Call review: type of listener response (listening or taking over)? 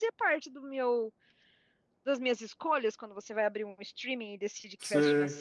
listening